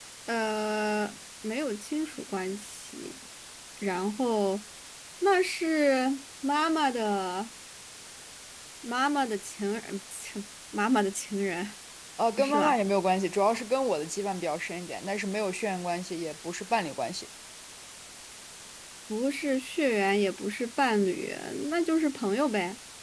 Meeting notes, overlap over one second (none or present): none